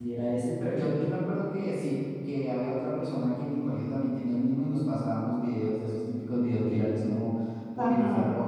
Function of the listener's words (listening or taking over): taking over